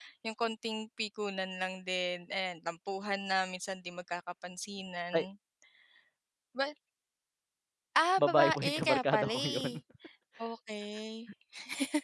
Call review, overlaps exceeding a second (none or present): present